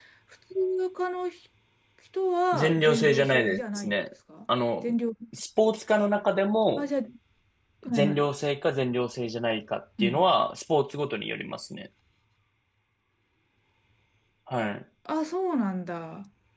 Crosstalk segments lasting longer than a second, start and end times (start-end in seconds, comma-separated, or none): 2.5-4.0